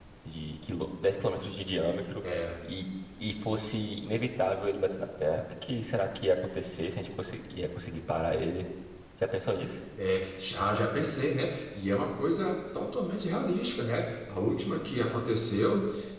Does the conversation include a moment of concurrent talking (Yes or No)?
No